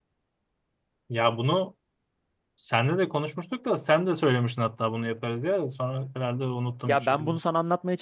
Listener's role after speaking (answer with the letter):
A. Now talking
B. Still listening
A